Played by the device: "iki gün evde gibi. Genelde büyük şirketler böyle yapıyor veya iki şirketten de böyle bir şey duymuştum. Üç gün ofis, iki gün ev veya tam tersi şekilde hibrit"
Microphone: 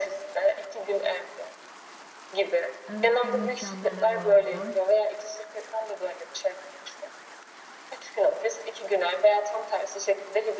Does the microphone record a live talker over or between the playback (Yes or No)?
Yes